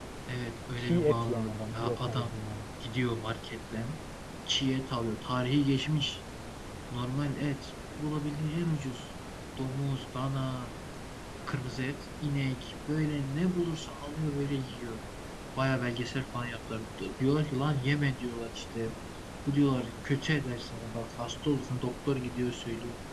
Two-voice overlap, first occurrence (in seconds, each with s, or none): 0.8 s